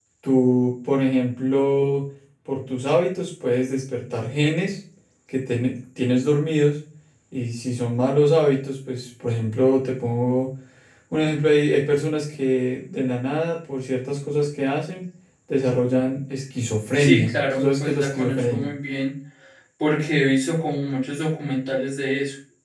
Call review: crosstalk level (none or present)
present